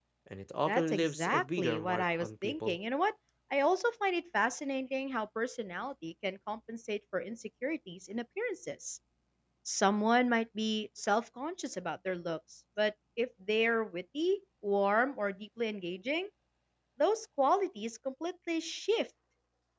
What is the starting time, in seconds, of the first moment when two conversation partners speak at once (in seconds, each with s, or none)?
0.7 s